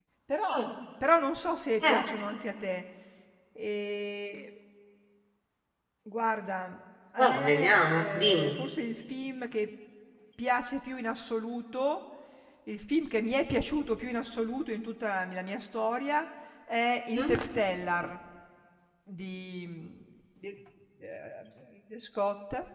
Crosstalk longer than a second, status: present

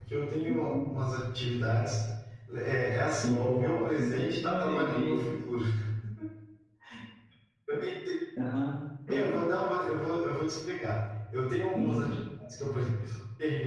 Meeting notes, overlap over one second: present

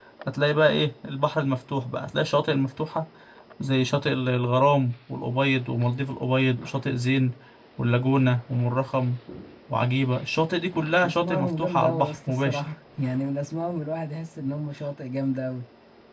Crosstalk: present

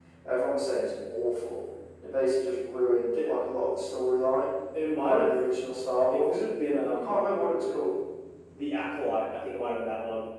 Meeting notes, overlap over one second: none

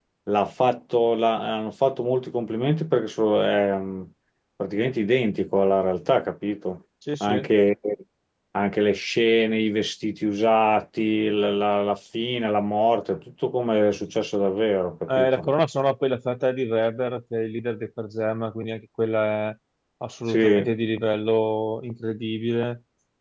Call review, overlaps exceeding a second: none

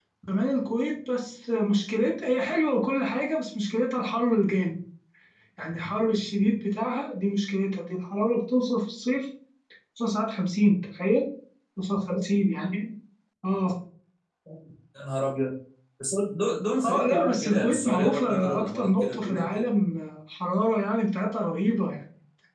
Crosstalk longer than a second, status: present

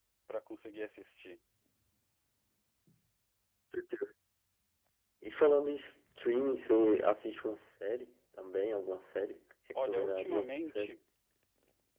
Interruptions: present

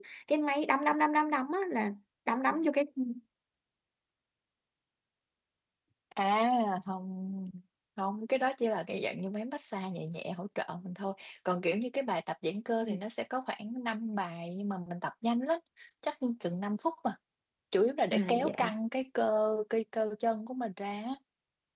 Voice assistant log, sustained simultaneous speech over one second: none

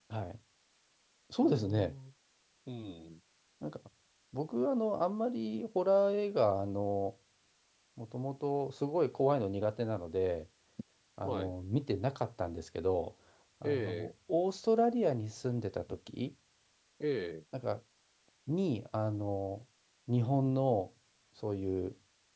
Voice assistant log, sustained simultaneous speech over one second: none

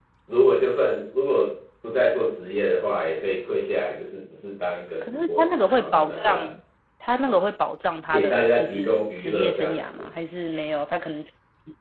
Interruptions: present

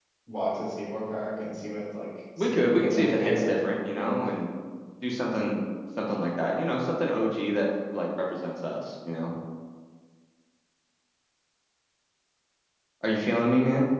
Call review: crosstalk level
present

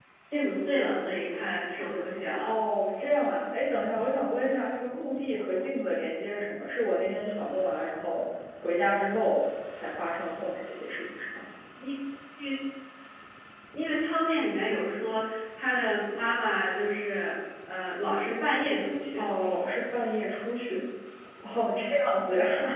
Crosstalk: none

